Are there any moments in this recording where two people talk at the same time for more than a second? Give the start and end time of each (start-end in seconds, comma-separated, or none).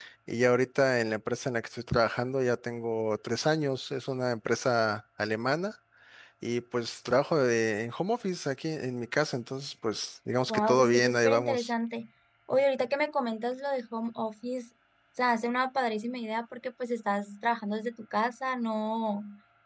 10.5-11.7